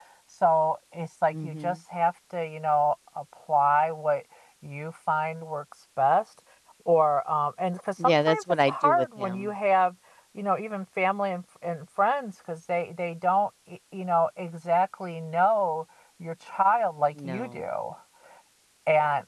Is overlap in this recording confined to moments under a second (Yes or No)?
No